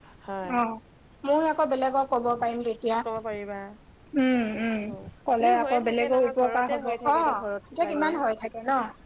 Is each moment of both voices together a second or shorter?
No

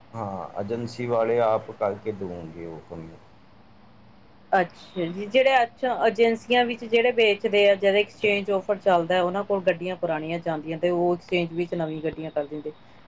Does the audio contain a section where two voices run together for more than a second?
No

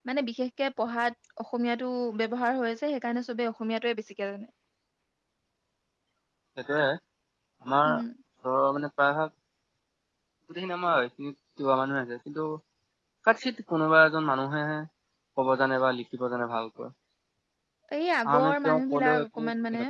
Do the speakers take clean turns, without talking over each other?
No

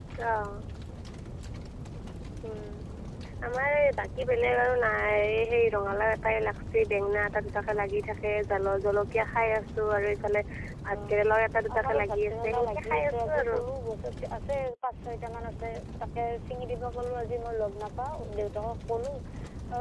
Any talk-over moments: Yes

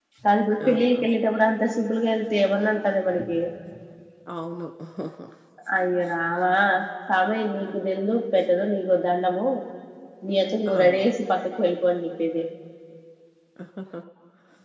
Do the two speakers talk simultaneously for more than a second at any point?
No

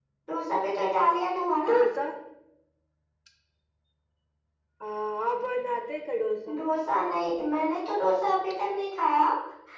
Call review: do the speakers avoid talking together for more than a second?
Yes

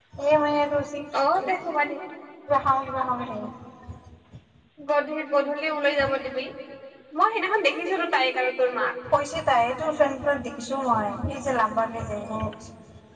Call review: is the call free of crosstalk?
Yes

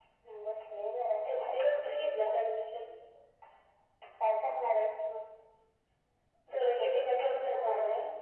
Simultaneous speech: Yes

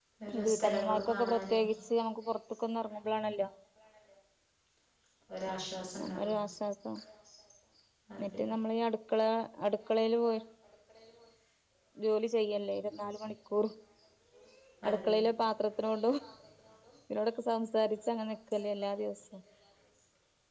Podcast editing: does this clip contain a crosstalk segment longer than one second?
Yes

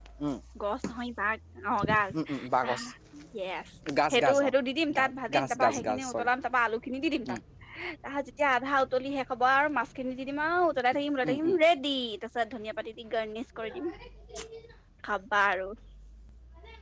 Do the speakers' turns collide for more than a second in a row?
Yes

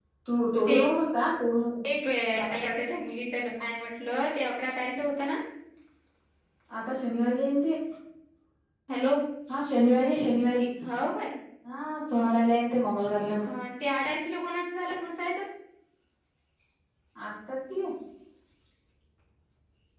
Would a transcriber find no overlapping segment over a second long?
Yes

